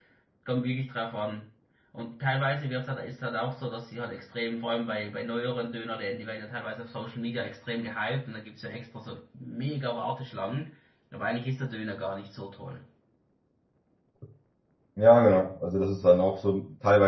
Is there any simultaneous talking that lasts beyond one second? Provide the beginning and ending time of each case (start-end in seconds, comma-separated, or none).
none